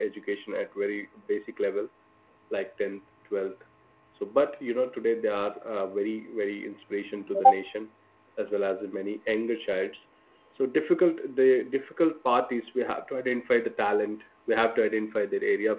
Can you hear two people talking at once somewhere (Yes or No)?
No